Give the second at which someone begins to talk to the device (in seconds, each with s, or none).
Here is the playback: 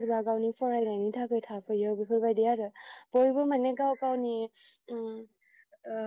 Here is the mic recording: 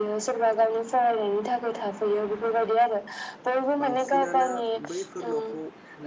3.8 s